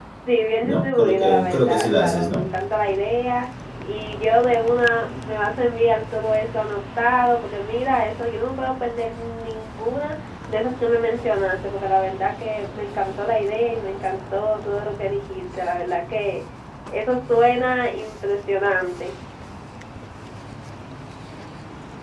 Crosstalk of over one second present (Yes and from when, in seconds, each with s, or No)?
Yes, from 0.6 s